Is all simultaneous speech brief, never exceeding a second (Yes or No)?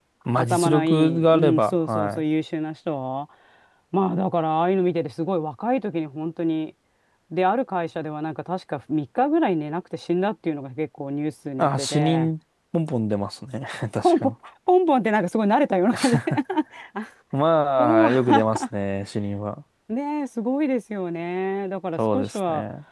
No